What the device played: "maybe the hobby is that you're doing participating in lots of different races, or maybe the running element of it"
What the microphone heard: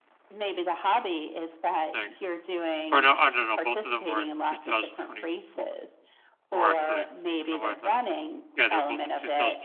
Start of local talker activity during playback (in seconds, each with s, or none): 1.9 s